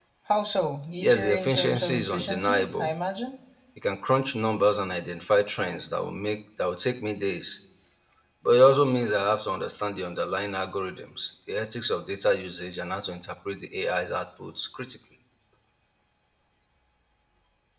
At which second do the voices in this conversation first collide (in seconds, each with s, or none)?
1.0 s